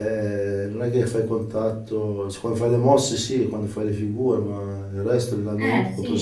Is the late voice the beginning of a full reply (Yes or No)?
No